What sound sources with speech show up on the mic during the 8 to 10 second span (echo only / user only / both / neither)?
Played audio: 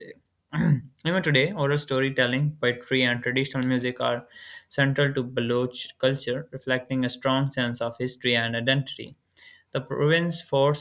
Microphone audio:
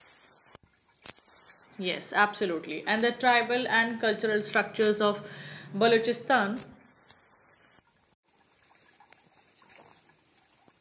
neither